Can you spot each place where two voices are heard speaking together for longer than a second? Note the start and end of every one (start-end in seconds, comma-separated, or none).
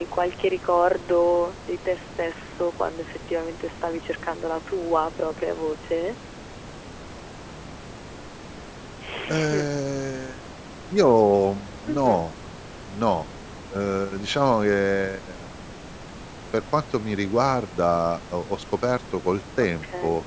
none